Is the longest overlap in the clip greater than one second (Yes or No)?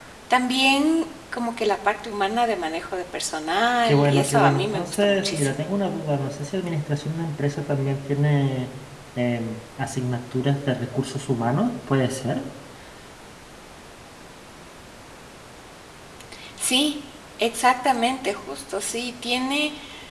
Yes